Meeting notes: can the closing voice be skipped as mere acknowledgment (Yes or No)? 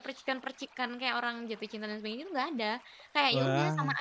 Yes